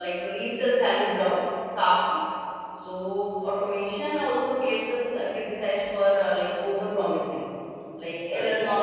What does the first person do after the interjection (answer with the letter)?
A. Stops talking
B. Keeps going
A